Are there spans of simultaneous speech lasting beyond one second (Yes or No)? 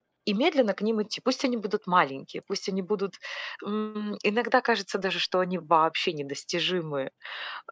No